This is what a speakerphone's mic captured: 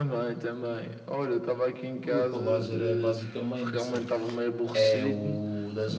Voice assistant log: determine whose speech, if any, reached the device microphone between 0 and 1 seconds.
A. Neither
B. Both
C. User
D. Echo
D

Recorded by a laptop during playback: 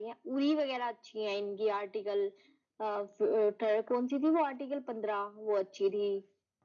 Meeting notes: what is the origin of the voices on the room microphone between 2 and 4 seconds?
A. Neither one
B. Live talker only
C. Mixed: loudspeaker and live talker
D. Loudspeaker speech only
D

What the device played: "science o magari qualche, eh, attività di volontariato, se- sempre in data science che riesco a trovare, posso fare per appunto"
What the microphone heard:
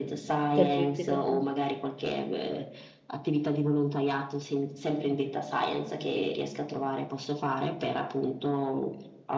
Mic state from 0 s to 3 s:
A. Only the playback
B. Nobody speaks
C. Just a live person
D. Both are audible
D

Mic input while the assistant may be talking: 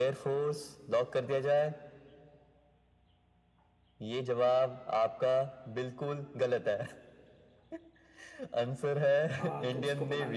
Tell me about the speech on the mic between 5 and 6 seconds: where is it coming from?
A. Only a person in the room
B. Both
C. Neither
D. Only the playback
D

